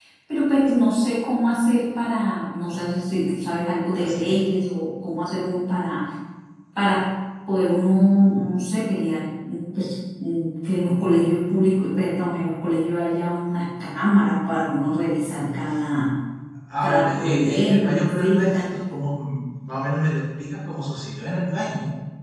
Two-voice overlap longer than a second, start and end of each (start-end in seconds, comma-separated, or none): 16.8-18.6